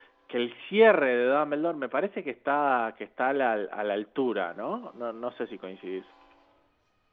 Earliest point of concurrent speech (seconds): none

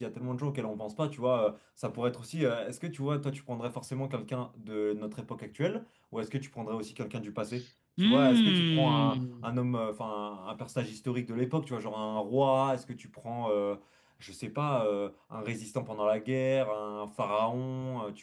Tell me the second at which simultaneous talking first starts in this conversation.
8 s

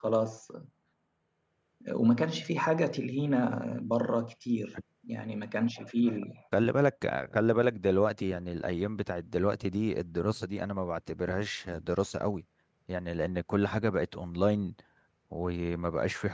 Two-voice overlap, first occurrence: none

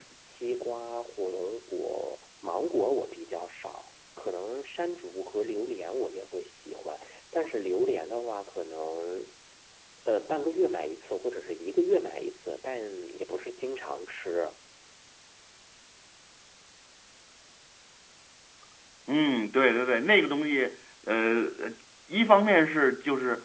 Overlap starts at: none

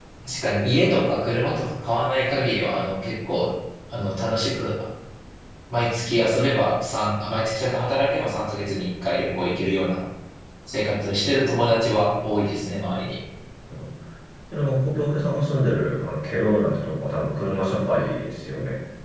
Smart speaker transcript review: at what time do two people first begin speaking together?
none

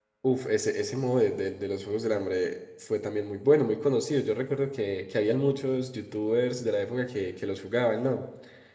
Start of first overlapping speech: none

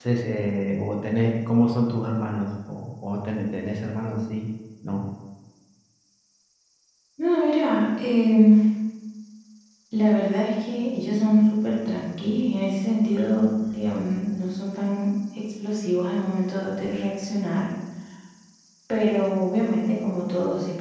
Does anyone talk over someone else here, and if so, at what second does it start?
none

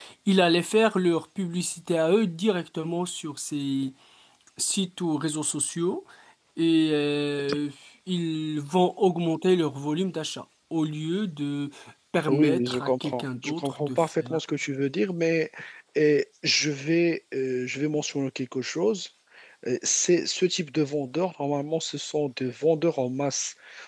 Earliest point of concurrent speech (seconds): 12 s

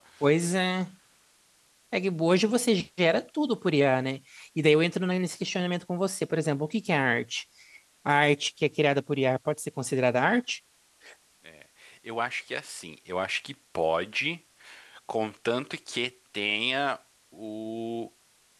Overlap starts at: none

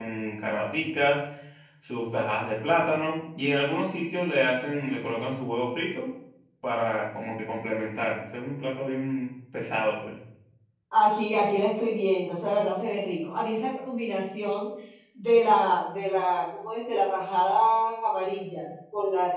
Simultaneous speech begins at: none

